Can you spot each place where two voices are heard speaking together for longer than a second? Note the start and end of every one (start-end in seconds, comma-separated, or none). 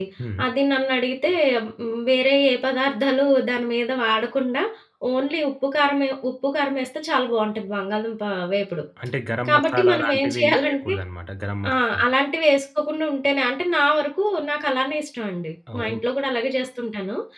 9.5-10.9